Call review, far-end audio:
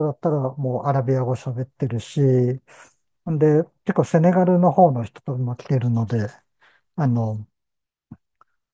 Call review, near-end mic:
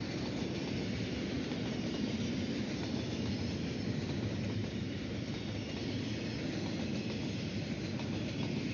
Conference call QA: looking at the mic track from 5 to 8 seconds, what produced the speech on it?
neither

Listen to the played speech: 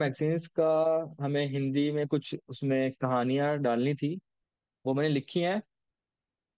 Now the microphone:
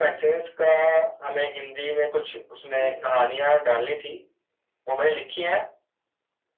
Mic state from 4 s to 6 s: echo only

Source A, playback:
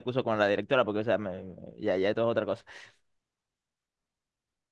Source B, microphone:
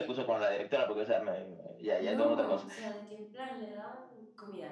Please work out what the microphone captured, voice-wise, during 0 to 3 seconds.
both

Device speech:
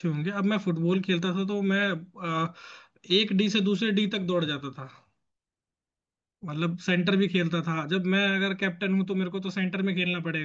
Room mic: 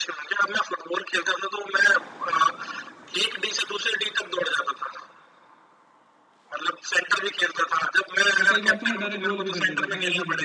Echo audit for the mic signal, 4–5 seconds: echo only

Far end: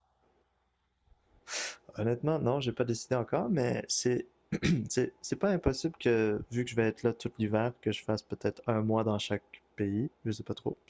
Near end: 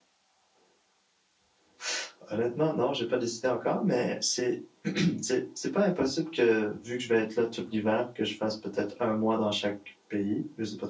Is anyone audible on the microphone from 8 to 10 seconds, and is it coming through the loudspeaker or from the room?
echo only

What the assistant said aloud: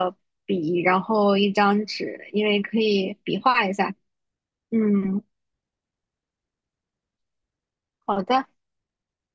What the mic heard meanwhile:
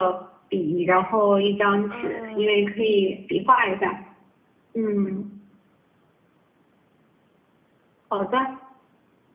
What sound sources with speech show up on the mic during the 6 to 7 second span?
neither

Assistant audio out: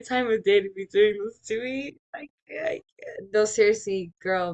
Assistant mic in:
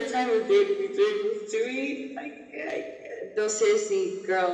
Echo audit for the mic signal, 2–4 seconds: echo only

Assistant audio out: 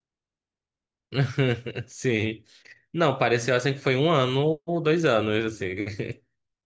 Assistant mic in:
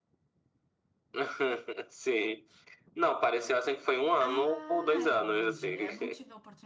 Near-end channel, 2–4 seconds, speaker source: echo only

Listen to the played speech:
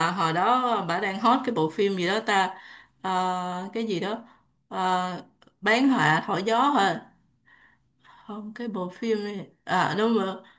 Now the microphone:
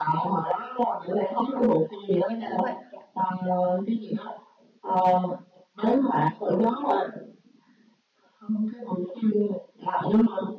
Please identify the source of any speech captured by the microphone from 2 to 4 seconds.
both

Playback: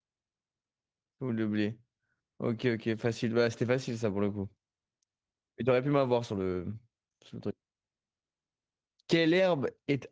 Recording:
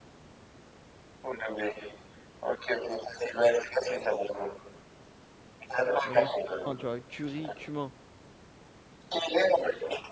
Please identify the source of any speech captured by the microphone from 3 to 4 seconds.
echo only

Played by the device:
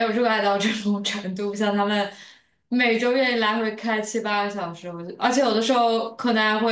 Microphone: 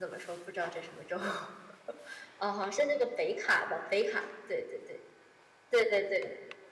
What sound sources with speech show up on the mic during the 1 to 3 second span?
user only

